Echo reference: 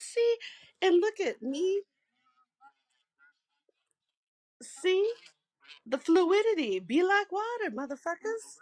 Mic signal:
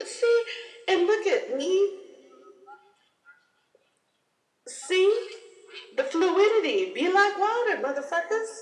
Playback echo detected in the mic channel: Yes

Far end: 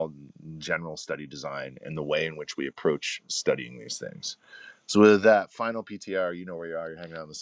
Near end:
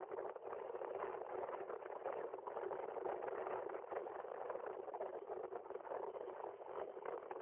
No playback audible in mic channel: Yes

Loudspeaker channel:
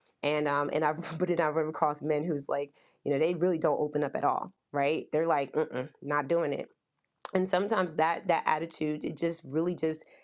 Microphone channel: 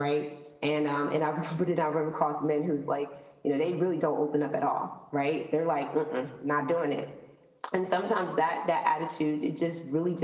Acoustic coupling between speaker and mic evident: Yes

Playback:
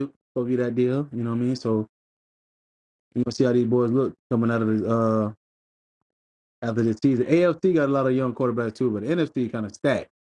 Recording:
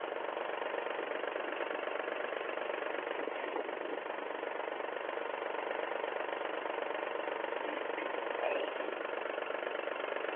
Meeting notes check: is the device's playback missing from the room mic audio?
Yes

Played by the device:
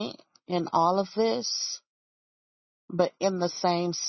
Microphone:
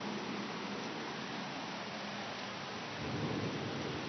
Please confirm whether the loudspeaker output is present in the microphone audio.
No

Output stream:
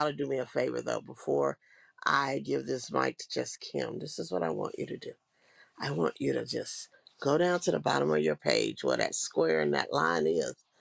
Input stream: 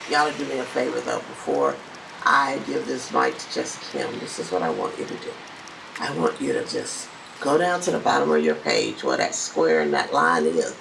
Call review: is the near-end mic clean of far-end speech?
No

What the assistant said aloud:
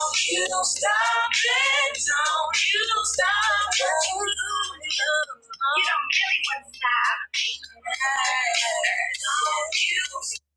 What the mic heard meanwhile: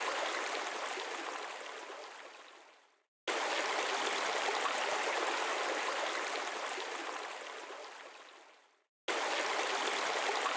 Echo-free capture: Yes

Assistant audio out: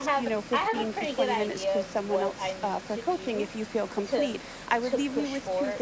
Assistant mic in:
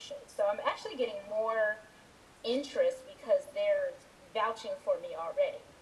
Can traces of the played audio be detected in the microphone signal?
No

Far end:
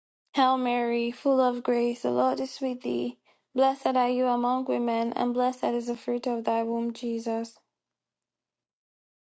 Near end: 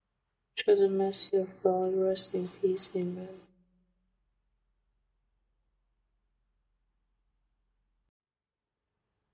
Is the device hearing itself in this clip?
No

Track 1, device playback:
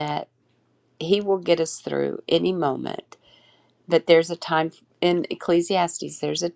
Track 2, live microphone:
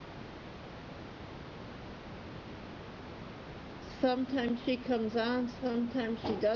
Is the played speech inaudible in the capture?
Yes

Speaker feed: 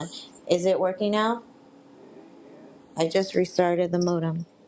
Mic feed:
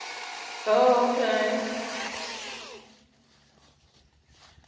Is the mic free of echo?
Yes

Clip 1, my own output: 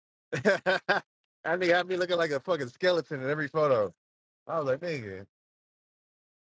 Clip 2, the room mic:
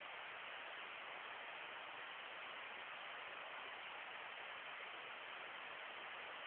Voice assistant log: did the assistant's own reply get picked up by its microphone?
No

